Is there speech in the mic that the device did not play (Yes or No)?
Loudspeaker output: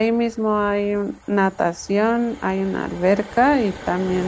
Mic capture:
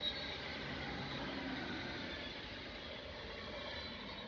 No